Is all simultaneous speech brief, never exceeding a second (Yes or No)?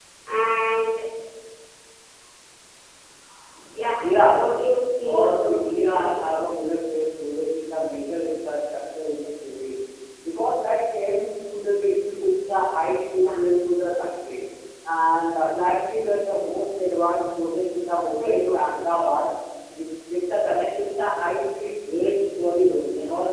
No